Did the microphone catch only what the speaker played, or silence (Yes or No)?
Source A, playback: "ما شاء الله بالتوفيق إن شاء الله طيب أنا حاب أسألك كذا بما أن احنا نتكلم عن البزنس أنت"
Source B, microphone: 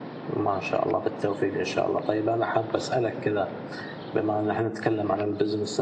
Yes